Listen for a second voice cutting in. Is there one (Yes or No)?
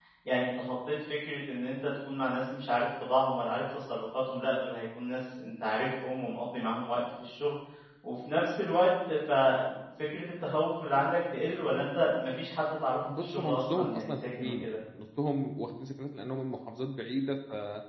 Yes